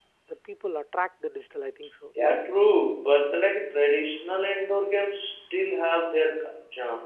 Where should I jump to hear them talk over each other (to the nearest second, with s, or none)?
none